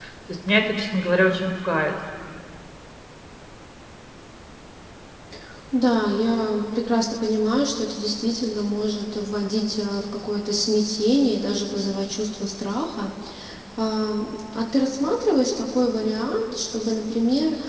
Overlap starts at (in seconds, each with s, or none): none